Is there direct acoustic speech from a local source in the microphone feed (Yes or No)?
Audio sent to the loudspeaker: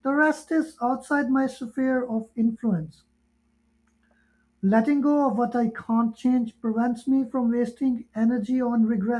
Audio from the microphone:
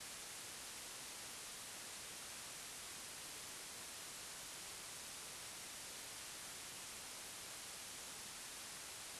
No